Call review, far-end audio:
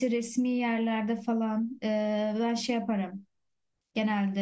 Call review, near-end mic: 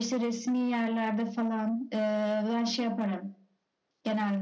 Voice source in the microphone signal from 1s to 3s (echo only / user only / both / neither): echo only